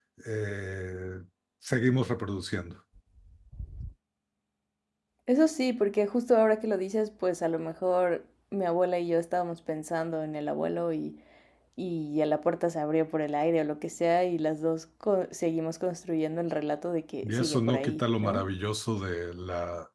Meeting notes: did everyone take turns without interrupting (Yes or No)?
No